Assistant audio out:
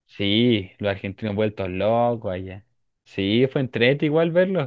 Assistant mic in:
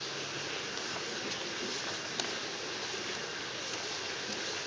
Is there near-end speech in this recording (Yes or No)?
No